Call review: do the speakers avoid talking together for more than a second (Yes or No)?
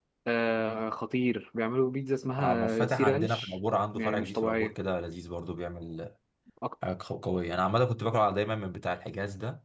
No